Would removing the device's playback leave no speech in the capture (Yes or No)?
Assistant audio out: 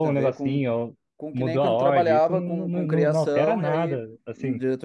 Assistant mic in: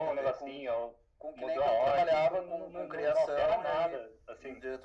Yes